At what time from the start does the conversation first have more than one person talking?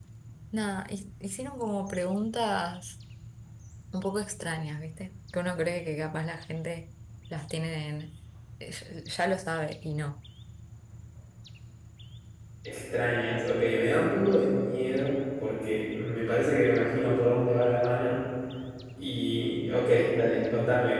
none

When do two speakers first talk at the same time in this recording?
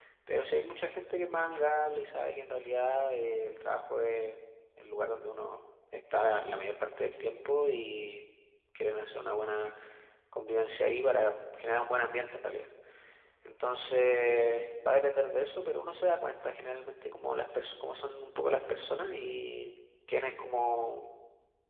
none

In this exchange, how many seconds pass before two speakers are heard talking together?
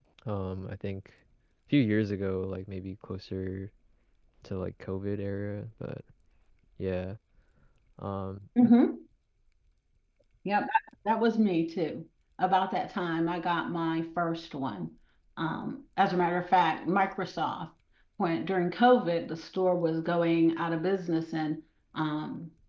none

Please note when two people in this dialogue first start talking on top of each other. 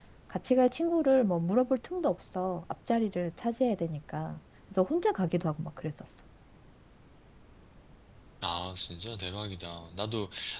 none

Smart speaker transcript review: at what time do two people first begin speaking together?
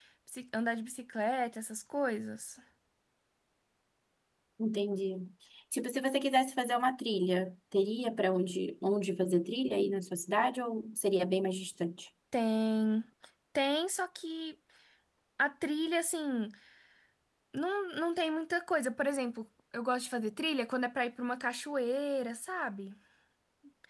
none

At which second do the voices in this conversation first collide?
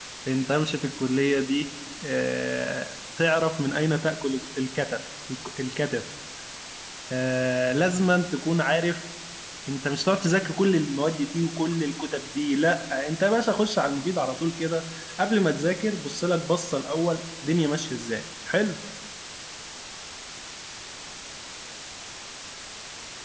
none

